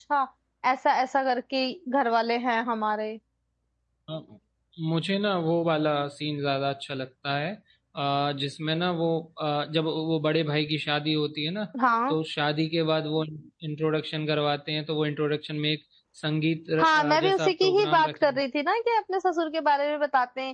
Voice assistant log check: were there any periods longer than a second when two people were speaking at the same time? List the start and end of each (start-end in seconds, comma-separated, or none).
16.8-18.4